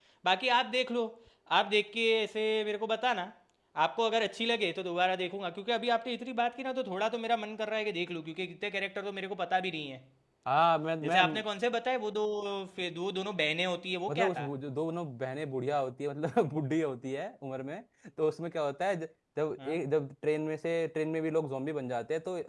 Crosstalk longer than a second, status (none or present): none